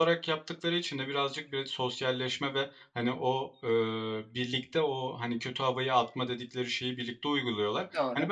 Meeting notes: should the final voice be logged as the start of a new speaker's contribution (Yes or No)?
No